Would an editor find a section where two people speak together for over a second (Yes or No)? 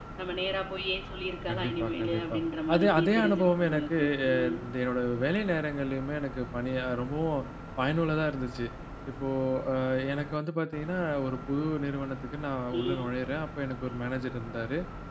Yes